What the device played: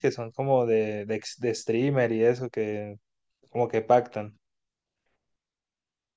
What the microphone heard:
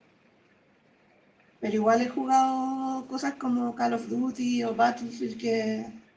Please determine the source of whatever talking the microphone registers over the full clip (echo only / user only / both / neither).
user only